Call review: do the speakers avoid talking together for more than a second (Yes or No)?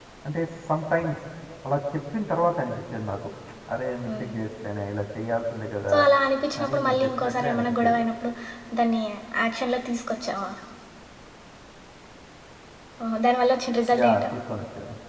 No